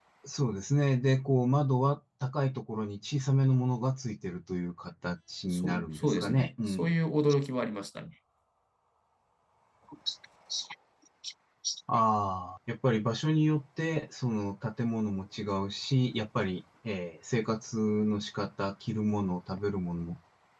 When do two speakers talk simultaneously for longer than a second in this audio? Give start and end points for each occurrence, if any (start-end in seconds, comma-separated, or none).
5.5-6.9